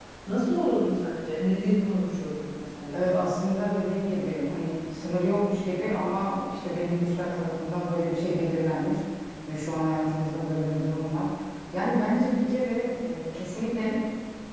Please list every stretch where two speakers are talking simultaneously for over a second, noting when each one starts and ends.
none

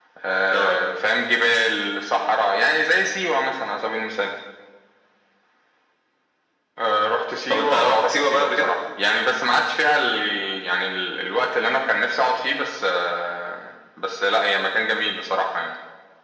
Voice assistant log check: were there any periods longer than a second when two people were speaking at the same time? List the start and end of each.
7.5-8.7

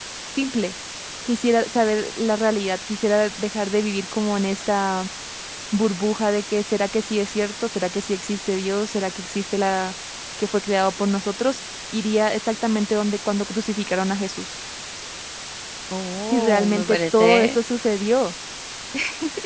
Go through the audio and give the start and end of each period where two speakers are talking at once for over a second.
16.3-17.6

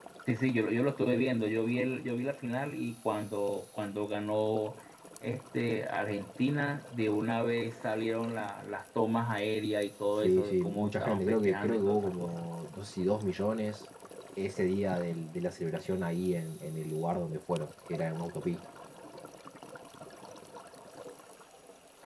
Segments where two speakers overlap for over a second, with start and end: 10.2-12.3

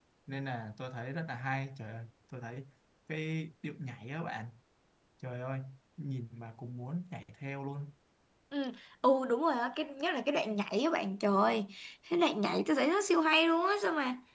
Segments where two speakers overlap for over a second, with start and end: none

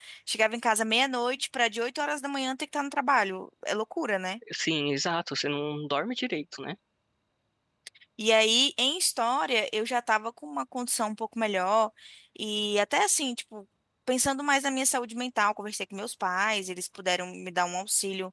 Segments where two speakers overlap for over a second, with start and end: none

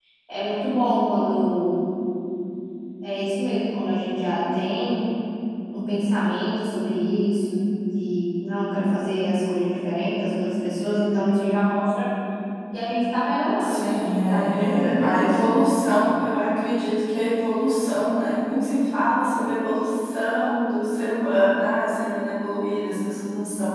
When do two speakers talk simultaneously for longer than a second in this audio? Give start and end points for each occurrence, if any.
13.6-15.4

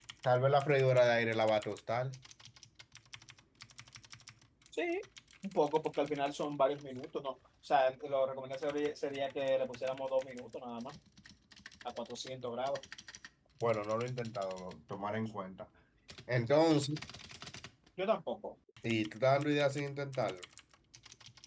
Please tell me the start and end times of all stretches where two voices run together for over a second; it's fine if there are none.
none

